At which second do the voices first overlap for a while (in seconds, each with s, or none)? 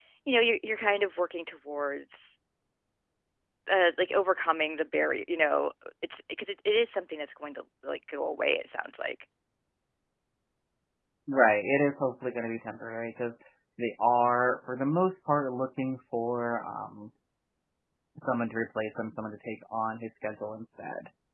none